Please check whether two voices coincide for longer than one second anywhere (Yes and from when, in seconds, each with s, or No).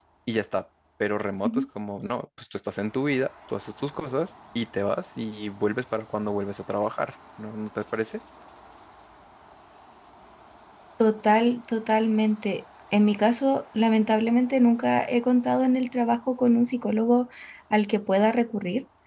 No